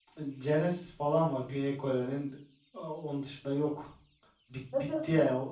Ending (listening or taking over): listening